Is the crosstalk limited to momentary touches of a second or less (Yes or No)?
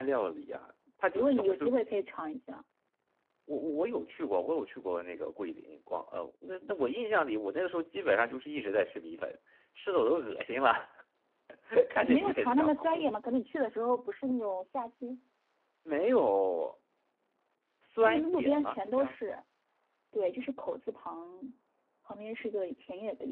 No